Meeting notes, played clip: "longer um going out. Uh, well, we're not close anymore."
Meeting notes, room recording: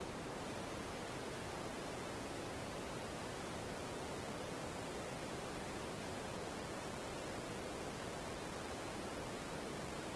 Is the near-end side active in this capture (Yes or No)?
No